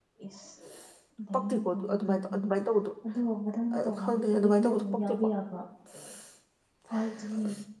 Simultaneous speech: Yes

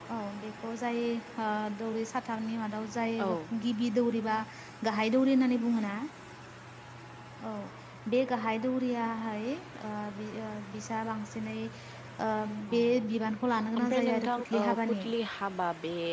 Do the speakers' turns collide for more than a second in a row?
Yes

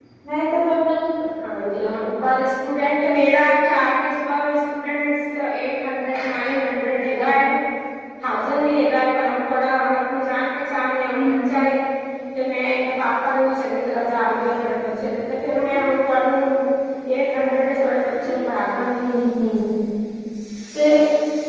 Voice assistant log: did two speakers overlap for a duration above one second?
No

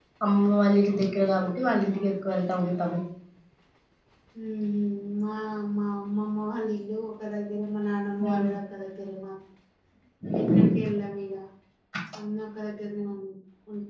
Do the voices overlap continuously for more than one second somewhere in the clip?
No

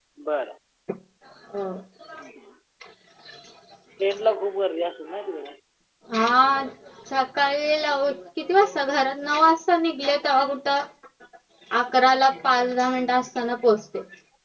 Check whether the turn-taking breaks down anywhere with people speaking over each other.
No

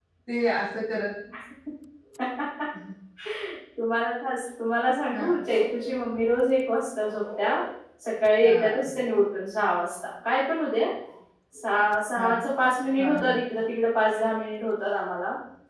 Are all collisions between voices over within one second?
Yes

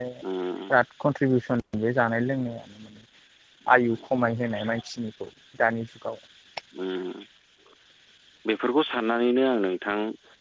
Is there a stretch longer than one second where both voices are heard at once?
No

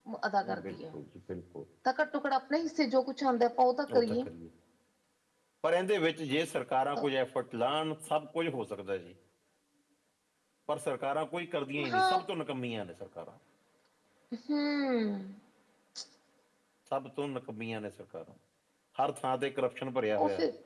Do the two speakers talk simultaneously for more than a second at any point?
No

